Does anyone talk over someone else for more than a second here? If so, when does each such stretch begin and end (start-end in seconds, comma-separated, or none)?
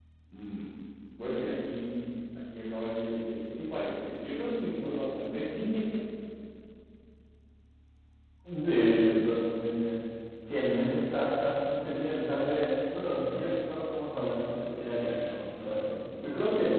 none